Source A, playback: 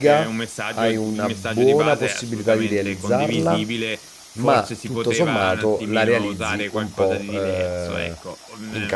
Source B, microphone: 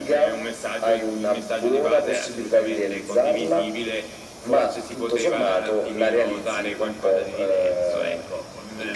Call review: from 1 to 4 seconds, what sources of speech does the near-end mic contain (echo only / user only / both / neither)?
echo only